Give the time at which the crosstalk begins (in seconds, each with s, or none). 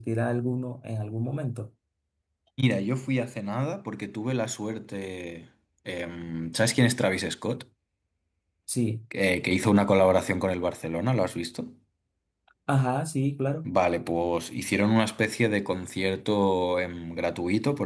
none